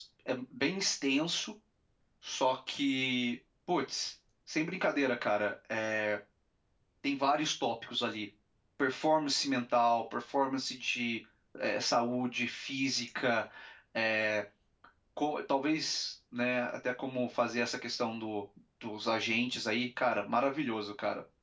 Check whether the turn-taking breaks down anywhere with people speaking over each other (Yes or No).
No